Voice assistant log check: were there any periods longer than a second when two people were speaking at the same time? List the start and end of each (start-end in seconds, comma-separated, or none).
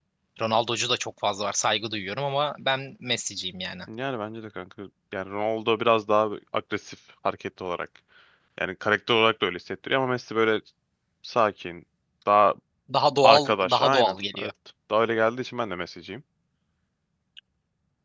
13.2-14.5